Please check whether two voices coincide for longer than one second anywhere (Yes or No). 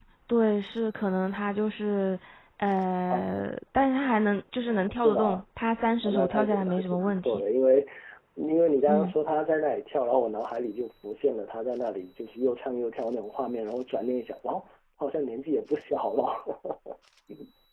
Yes